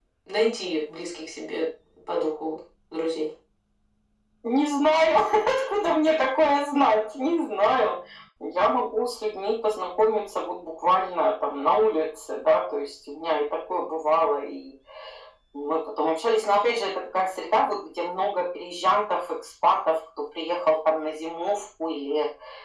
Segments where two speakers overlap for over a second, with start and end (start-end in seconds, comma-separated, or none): none